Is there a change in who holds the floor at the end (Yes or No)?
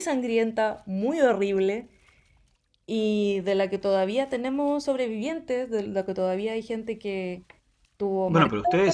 Yes